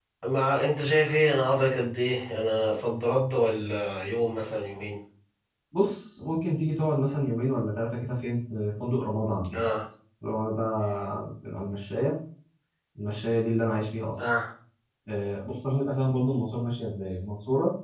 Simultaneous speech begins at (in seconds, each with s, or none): none